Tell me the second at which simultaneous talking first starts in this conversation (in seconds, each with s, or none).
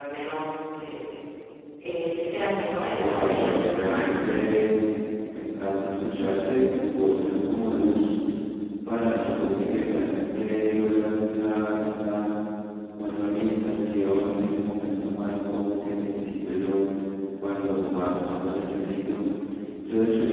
3.0 s